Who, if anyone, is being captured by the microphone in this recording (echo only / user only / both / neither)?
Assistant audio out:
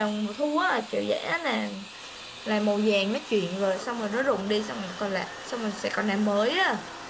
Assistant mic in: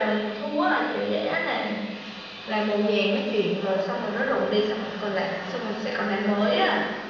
echo only